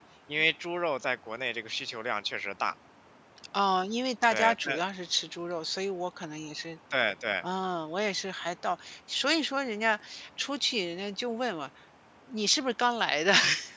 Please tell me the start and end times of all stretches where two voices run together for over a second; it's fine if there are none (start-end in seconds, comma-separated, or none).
none